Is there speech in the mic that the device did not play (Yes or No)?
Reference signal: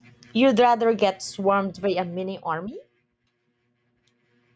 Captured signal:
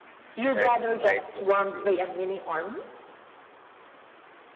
Yes